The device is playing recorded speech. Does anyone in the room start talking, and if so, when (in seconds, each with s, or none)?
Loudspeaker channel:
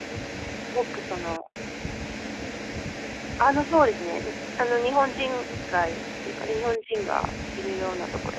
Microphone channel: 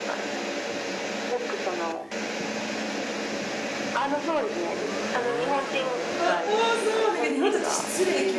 6.2 s